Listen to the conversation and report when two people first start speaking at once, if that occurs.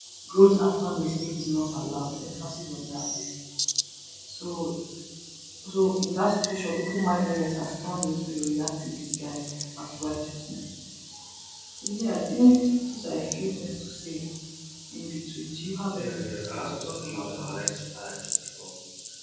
15.9 s

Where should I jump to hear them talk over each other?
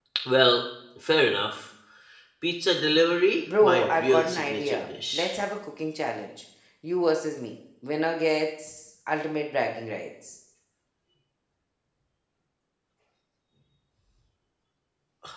3.5 s

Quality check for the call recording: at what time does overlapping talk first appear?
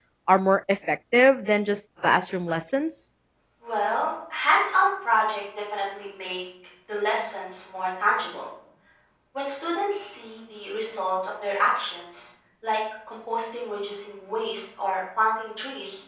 none

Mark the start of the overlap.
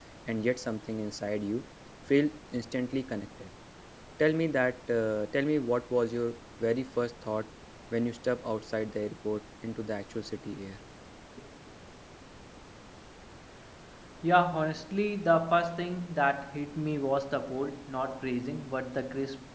none

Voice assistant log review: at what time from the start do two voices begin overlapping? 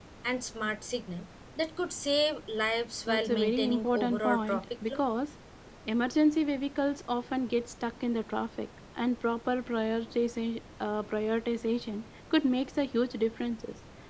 3.1 s

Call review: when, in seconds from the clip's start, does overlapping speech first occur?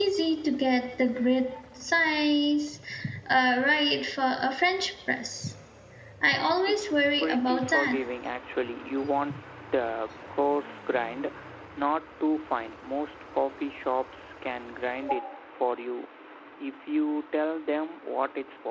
6.7 s

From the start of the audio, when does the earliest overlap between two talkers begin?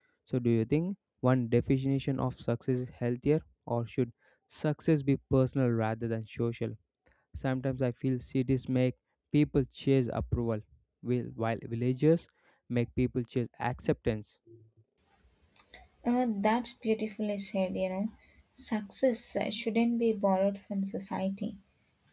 none

